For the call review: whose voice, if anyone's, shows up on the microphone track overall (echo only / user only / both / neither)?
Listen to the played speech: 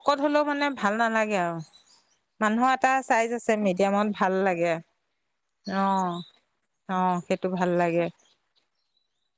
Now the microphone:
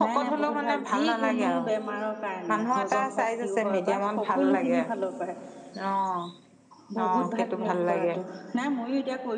both